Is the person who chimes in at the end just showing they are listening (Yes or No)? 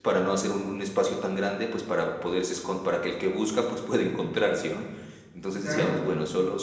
Yes